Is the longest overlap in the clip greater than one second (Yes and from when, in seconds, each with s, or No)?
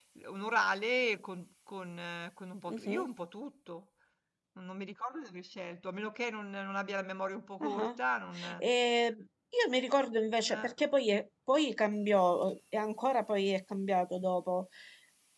No